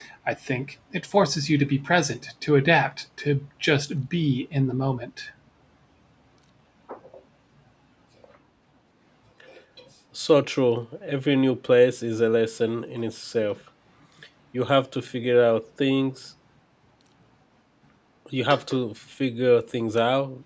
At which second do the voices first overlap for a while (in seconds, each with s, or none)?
none